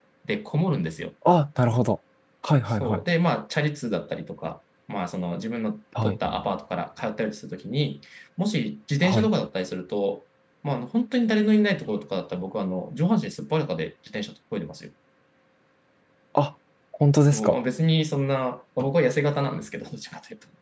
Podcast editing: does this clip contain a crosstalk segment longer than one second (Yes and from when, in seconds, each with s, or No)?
No